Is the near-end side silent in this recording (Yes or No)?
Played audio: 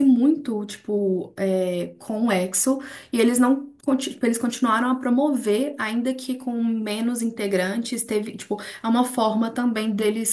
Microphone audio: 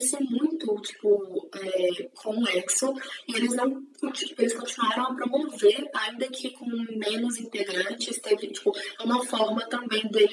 Yes